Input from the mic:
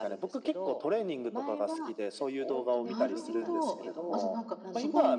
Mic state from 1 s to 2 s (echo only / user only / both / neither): echo only